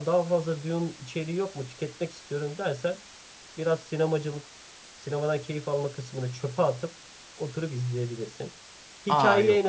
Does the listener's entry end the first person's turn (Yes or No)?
No